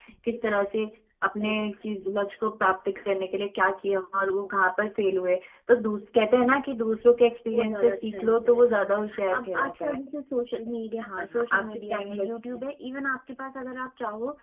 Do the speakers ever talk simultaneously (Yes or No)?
Yes